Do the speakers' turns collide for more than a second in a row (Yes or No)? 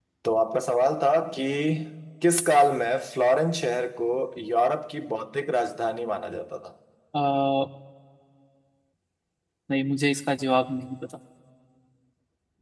No